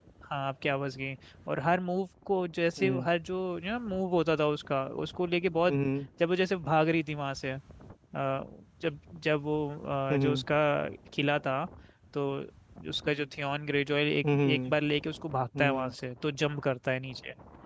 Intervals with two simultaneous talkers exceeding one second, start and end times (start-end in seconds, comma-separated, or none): none